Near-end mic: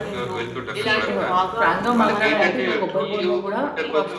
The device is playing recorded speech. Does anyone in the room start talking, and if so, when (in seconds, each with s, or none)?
0.8 s